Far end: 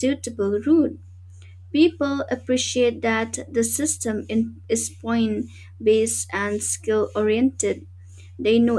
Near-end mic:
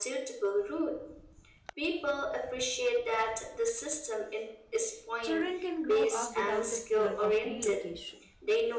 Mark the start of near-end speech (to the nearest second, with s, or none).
5 s